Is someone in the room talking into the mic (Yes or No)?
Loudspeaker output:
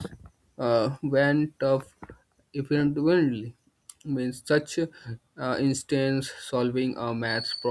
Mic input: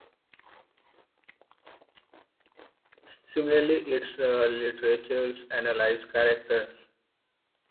Yes